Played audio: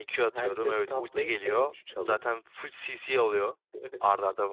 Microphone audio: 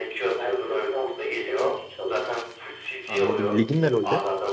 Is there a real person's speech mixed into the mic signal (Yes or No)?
Yes